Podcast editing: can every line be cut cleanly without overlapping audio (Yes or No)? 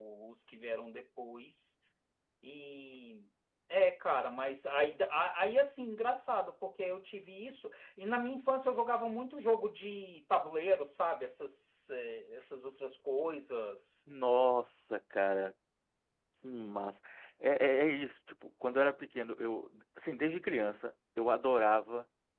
Yes